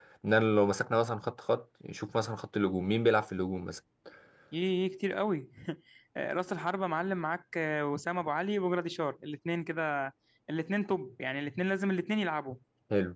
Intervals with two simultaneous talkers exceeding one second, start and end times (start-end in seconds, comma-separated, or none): none